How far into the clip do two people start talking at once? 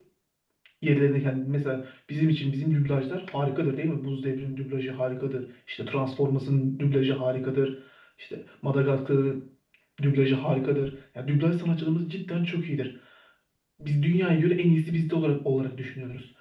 none

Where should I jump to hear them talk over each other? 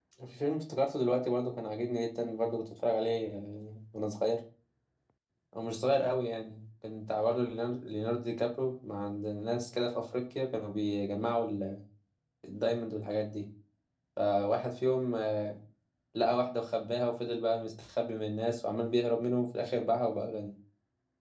none

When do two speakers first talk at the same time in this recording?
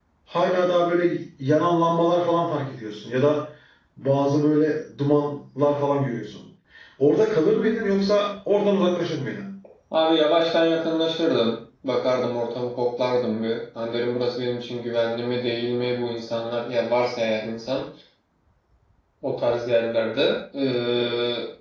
none

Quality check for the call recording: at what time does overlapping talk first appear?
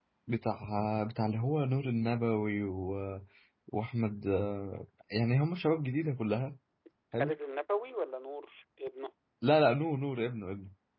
none

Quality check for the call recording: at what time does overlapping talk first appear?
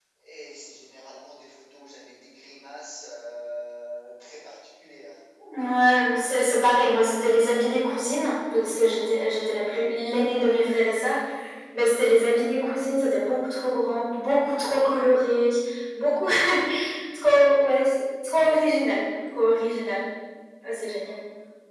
none

